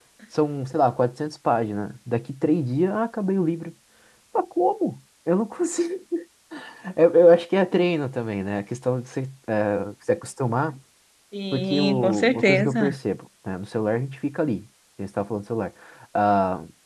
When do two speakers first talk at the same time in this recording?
12 s

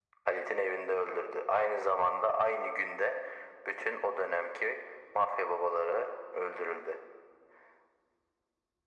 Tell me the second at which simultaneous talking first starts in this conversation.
none

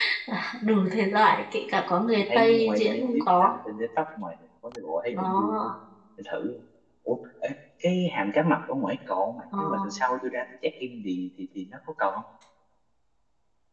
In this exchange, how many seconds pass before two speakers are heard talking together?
2 s

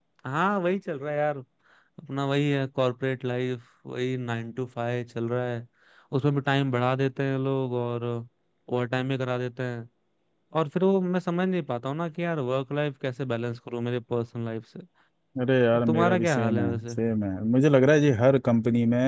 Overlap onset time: 16 s

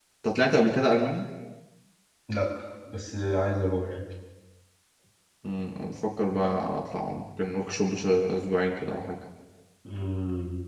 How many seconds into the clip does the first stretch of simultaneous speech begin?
none

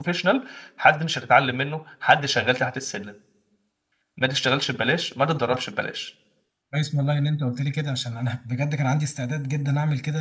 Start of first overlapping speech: none

